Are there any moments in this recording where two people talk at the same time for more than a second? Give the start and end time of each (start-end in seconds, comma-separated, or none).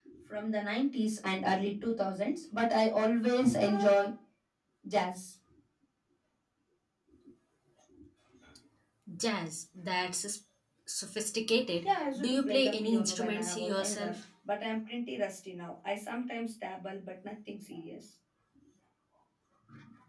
11.8-14.2